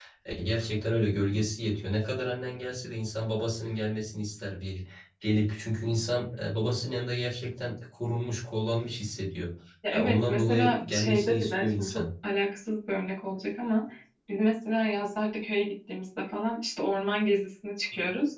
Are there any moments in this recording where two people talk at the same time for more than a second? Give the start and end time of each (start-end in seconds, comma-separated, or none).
9.9-12.0